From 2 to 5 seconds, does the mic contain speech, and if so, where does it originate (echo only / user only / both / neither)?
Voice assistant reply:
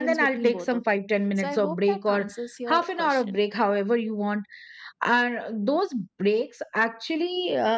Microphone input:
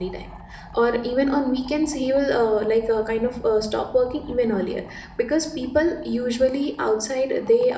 user only